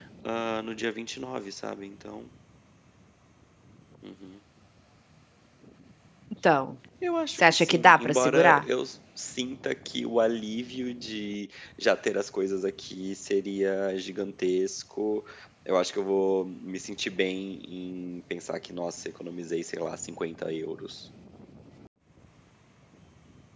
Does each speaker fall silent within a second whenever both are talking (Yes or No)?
No